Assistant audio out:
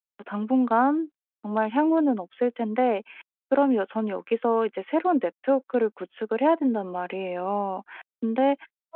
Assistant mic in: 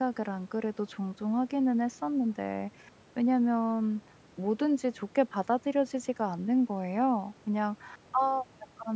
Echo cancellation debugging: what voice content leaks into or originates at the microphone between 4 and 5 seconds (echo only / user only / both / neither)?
user only